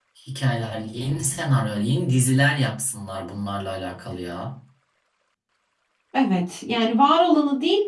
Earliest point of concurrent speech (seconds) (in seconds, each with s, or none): none